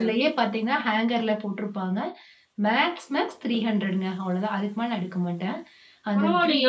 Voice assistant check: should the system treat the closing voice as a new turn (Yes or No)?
Yes